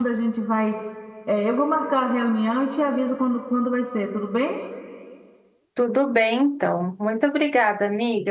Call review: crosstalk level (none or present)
none